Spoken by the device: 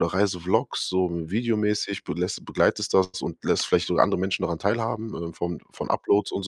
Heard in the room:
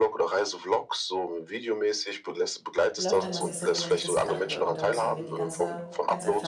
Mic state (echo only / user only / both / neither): both